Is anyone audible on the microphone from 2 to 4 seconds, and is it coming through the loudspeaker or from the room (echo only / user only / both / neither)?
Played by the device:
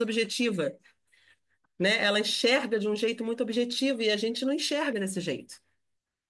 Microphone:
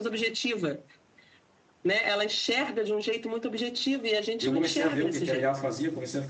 echo only